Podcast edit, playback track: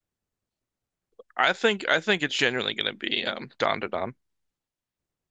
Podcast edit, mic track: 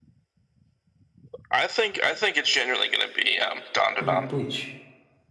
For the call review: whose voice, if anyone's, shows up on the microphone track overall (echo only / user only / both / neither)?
both